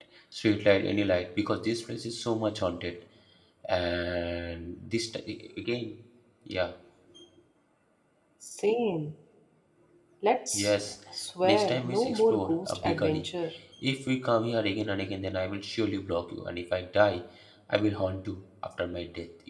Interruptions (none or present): present